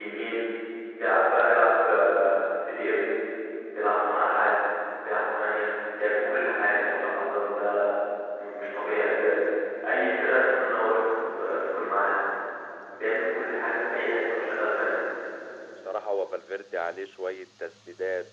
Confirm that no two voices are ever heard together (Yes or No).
Yes